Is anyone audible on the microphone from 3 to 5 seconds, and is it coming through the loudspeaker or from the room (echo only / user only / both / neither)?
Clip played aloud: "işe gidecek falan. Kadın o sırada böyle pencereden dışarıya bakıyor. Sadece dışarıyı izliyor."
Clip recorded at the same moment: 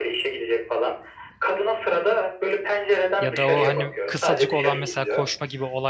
both